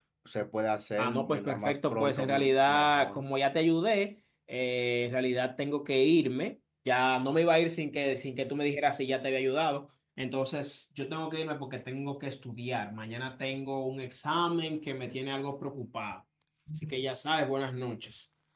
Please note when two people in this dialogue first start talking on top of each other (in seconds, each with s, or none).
1.0 s